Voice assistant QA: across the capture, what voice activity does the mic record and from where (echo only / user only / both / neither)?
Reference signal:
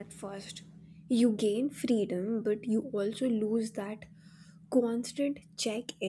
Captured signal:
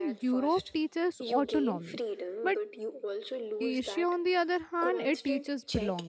both